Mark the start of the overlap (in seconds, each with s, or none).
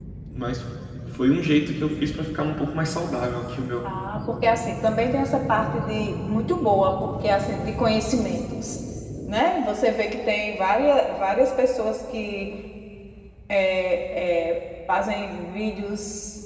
none